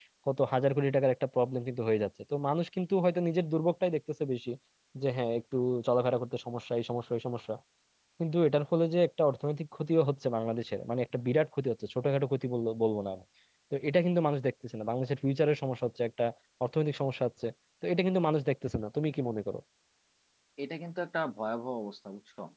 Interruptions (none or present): none